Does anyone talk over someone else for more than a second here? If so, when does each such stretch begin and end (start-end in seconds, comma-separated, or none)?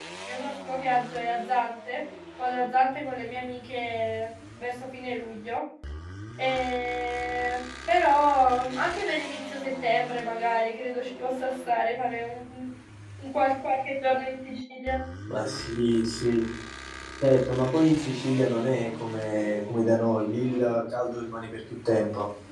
none